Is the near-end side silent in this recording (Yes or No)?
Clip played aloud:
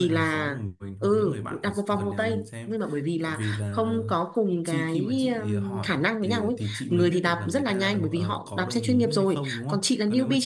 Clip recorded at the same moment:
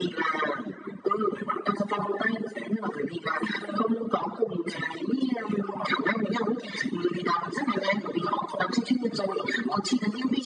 Yes